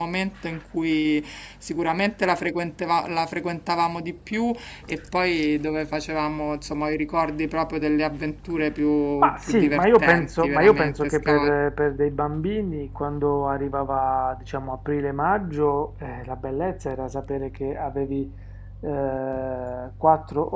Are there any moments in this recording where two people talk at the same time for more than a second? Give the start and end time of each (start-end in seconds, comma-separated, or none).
9.2-11.6